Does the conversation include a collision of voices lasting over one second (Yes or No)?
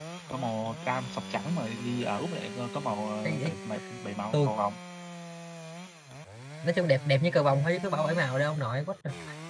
No